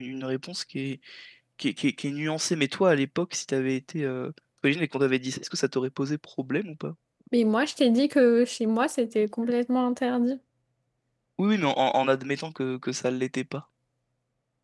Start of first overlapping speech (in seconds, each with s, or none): none